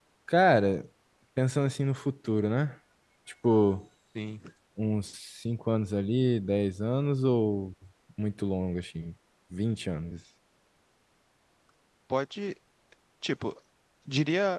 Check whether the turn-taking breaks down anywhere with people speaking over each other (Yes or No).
No